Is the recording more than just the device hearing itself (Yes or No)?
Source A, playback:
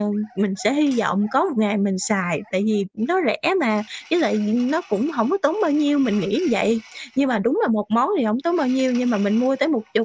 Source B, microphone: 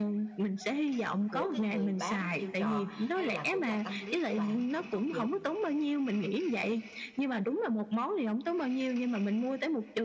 Yes